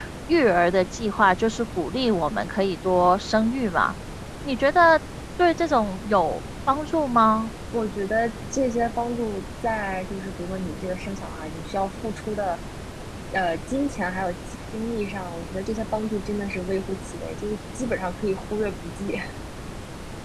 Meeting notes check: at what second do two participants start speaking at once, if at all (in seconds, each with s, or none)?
none